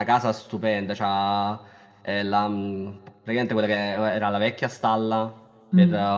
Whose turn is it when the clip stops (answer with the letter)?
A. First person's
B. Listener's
A